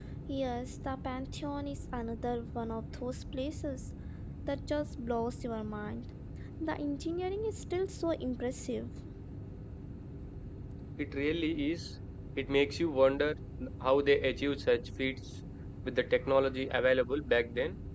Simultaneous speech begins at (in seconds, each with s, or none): none